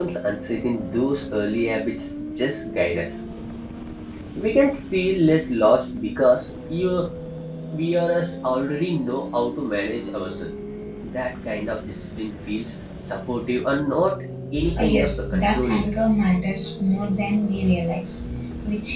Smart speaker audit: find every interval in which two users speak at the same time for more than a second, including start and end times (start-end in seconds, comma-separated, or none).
14.8-16.1